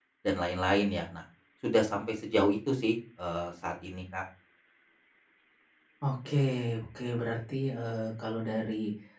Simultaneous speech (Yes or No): No